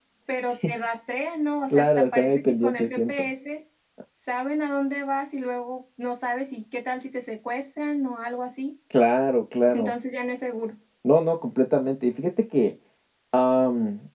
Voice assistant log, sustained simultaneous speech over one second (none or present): present